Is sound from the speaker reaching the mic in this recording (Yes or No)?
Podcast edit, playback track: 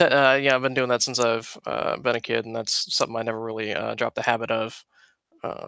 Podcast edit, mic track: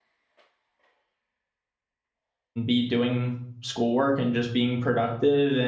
No